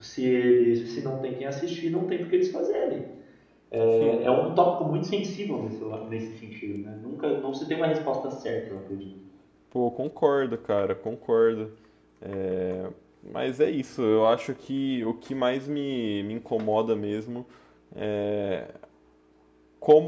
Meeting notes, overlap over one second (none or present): none